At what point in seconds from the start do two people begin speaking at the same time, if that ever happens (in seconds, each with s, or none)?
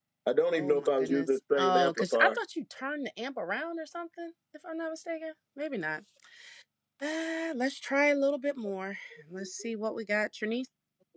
0.5 s